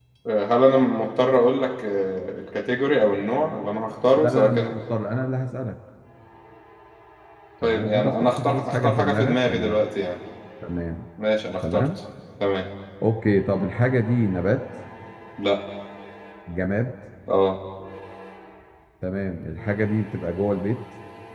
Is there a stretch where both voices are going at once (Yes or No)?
Yes